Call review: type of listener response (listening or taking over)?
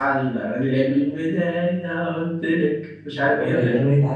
taking over